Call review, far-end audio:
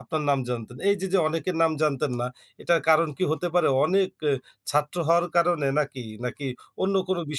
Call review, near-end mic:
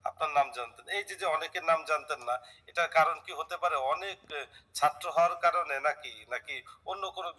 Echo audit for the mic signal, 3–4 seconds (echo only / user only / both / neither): echo only